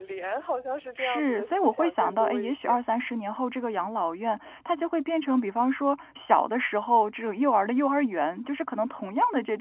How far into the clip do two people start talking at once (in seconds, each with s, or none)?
1.0 s